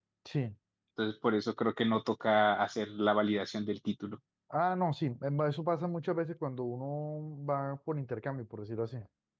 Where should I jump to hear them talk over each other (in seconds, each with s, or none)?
none